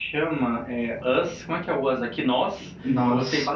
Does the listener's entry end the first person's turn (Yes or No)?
No